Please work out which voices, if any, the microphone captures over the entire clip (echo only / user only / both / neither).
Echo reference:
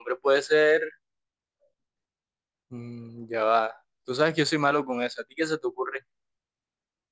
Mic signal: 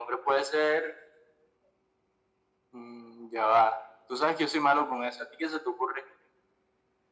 echo only